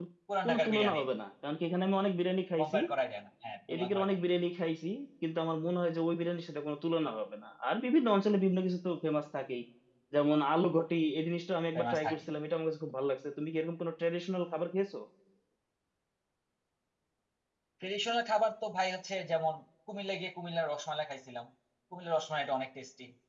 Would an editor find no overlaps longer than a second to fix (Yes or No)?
Yes